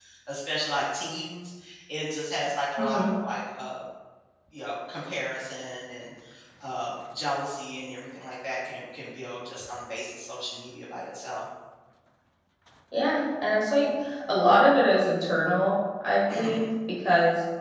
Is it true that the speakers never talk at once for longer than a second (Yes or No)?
Yes